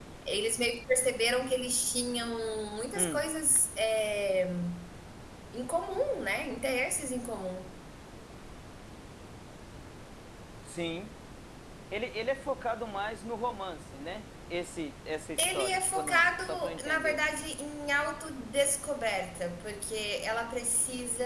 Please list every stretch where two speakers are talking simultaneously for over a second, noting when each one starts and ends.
15.4-17.2

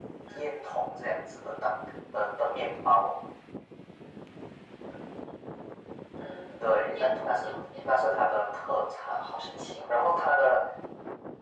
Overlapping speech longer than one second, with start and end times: 6.6-8.1

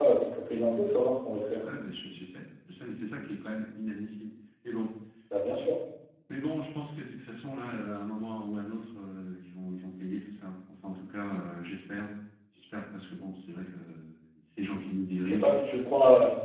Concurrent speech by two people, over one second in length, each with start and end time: none

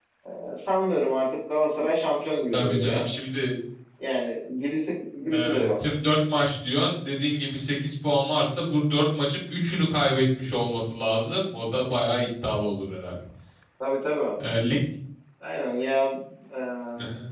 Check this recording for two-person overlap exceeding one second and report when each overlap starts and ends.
none

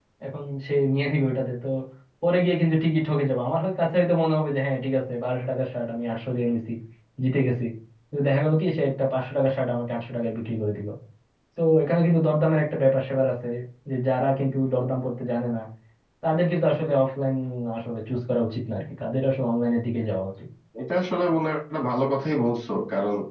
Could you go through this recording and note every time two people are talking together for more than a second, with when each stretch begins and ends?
none

